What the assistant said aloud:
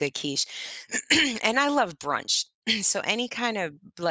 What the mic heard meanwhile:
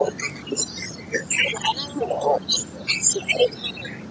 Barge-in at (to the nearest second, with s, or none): none